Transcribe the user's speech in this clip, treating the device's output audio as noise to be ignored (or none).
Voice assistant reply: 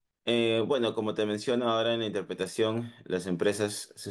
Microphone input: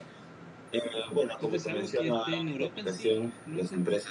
cuentes algo que esté en Europa en sí. ¿Lo has-